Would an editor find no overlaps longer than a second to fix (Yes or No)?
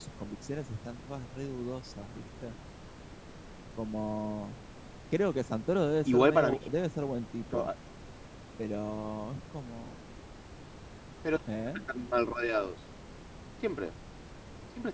Yes